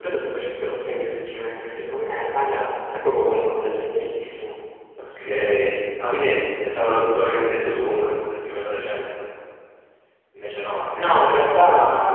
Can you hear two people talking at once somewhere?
Yes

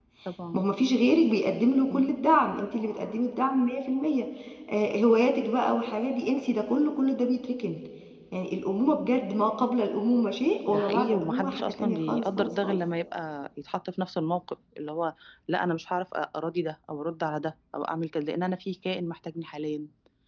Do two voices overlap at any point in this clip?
Yes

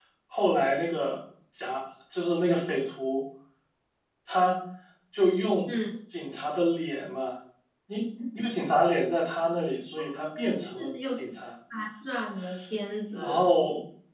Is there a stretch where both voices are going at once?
Yes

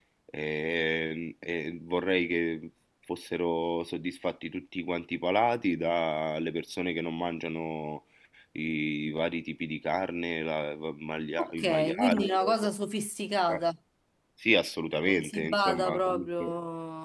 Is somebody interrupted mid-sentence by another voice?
Yes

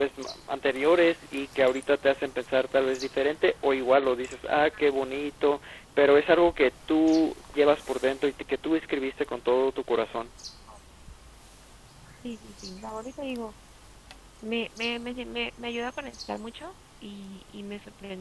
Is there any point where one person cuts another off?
No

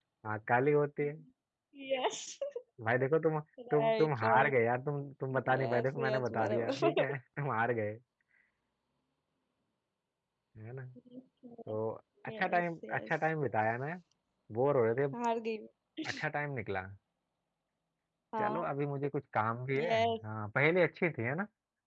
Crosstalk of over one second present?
Yes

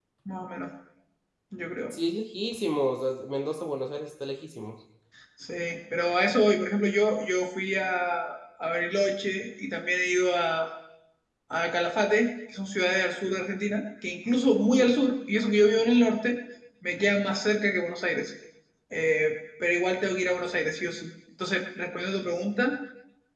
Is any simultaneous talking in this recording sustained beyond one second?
No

